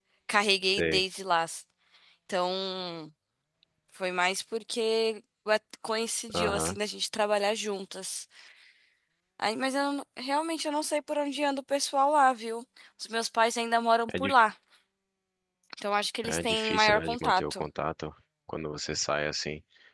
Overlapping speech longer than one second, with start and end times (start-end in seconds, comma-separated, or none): 16.2-17.6